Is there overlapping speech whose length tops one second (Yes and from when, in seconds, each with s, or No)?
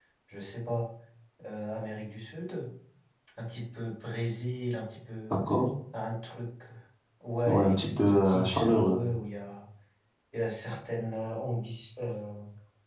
Yes, from 7.5 s